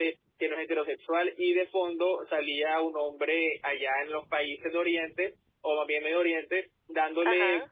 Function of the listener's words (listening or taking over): listening